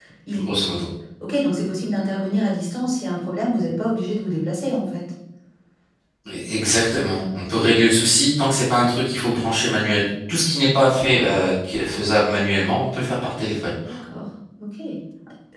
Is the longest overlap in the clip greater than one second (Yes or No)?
No